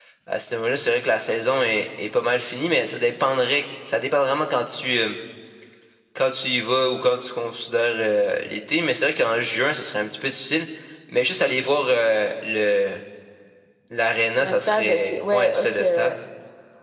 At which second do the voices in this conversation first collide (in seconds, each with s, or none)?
14.4 s